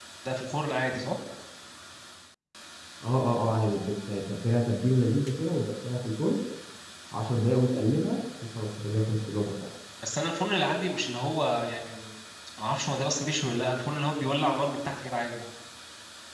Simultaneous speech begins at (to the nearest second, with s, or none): none